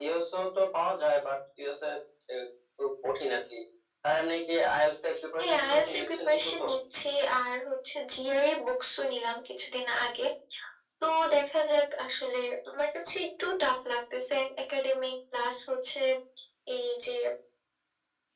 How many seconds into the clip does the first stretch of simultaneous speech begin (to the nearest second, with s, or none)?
5 s